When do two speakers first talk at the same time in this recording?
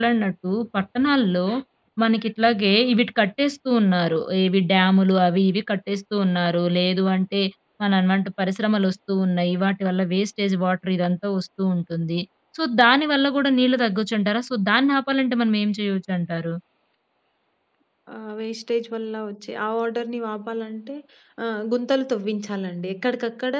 none

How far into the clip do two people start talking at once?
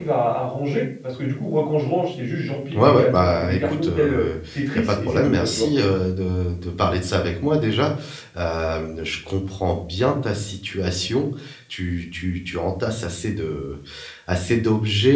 2.7 s

